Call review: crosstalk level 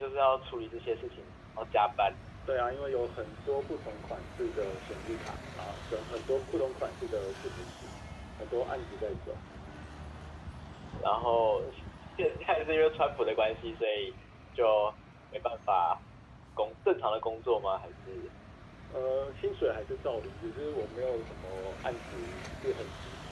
none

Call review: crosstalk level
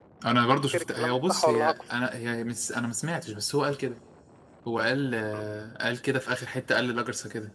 present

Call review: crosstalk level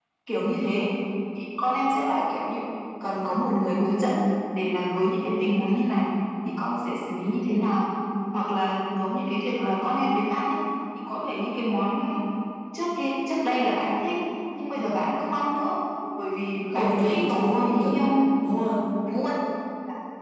present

